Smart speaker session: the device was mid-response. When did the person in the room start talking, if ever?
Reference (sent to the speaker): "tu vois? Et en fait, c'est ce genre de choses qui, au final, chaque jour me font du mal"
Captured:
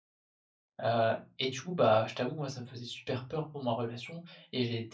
1 s

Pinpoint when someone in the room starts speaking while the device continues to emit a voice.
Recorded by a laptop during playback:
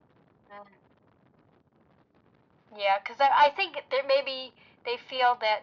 none

